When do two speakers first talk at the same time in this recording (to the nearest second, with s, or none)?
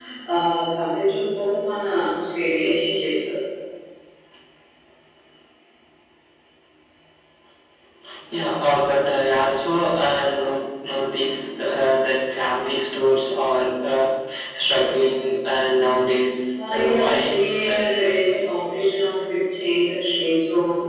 17 s